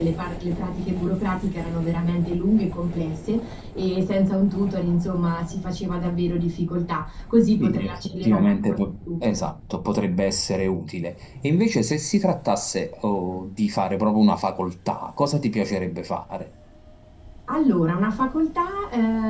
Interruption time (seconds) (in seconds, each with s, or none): 7.6 s